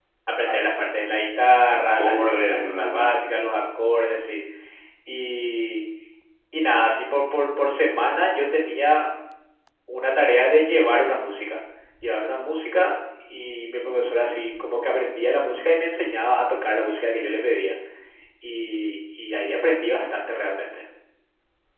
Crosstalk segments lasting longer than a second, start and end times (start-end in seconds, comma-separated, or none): 1.7-3.0